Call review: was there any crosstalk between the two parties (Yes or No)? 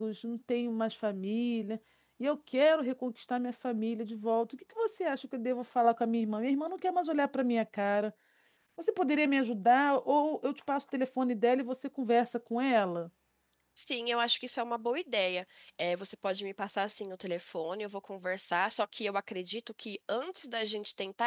No